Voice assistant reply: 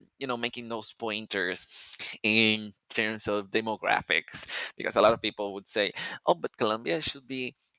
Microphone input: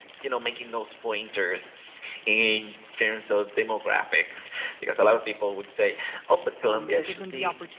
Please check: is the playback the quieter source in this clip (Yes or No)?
No